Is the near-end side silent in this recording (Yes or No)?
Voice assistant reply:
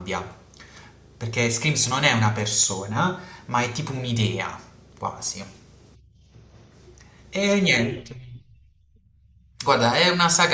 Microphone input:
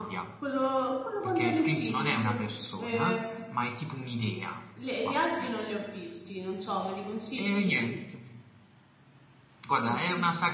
No